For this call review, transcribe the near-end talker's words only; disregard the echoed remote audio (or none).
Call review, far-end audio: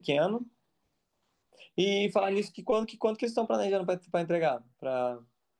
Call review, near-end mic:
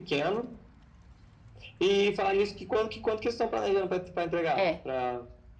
É,